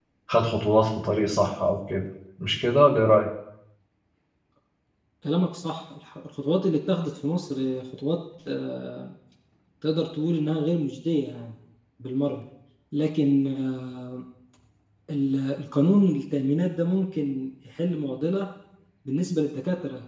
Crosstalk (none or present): none